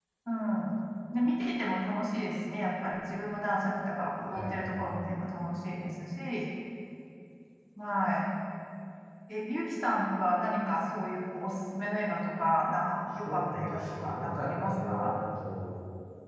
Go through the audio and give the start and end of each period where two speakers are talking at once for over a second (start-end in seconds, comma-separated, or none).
13.2-15.1